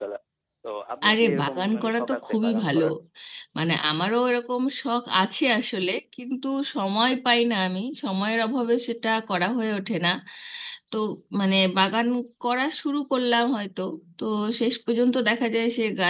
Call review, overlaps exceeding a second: present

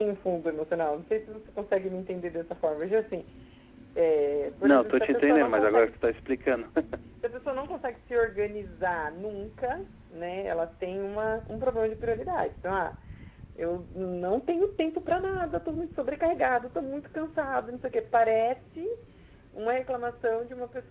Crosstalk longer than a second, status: present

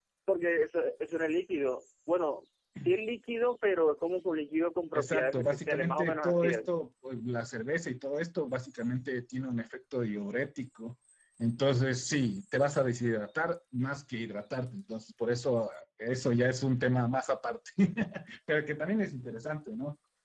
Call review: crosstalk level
present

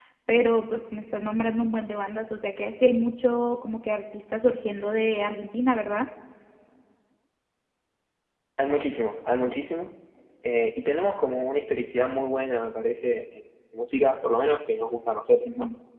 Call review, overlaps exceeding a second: none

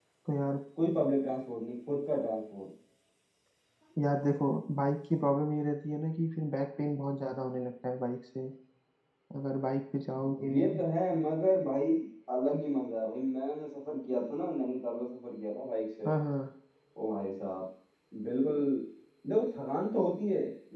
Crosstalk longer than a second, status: none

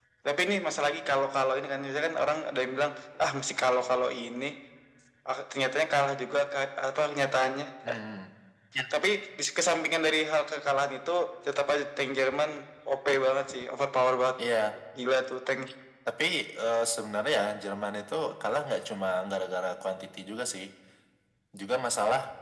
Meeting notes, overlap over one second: none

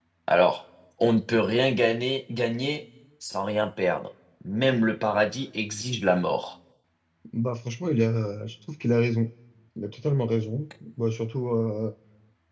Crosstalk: none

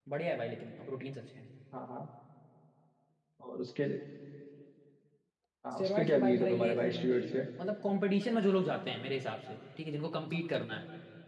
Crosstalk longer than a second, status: present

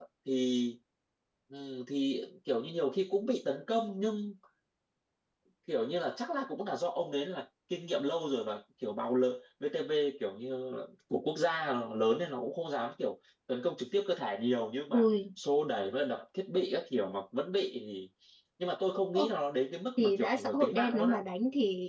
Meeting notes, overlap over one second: present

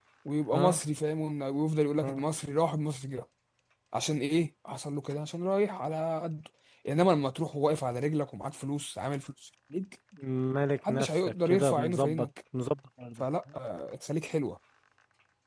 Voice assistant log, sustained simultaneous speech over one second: present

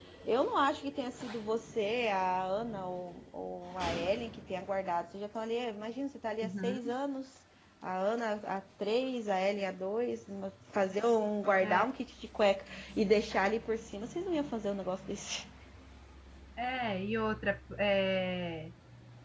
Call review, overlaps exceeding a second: none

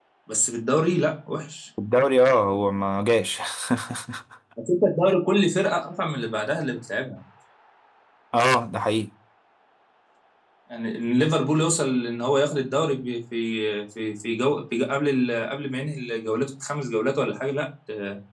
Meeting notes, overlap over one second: none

